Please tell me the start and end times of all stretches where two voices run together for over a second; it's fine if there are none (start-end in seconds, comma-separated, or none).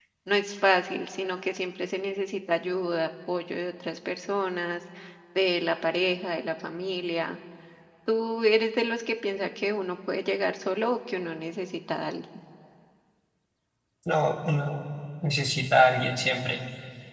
none